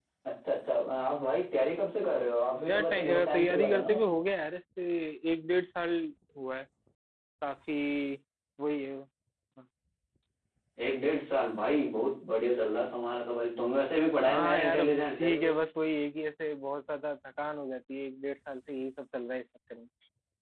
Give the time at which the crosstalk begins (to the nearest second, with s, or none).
3 s